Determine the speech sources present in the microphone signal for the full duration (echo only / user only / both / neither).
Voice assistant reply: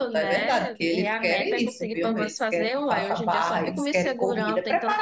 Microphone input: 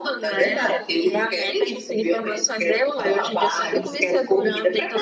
echo only